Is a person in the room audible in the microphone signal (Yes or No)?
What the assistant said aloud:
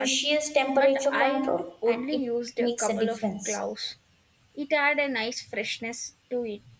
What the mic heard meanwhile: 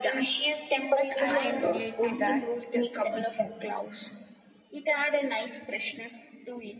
Yes